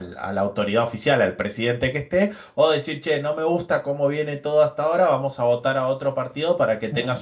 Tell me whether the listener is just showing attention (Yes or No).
Yes